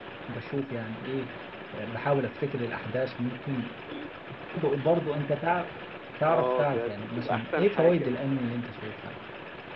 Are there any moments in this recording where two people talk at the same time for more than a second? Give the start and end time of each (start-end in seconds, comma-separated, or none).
6.3-8.2